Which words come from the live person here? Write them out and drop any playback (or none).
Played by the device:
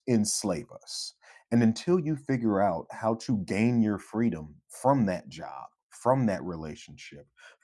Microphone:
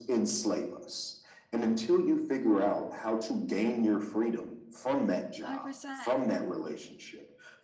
100%.